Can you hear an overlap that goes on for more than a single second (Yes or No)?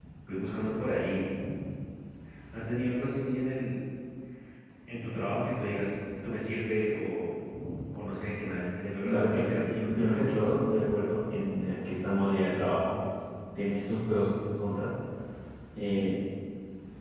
Yes